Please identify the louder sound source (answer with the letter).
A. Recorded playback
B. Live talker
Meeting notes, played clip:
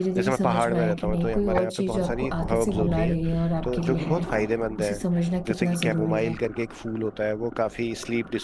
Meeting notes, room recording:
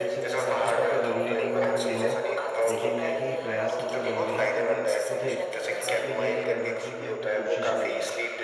A